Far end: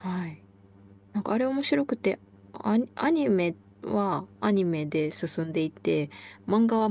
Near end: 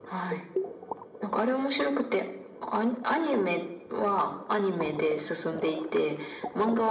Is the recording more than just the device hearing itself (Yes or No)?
No